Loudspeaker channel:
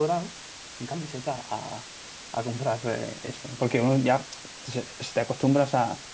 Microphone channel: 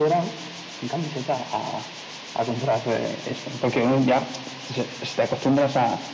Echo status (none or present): present